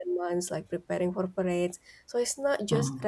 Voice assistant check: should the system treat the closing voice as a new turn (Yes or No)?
No